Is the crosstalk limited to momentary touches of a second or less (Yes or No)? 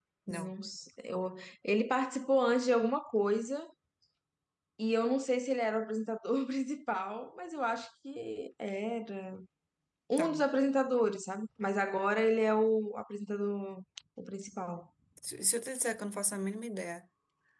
Yes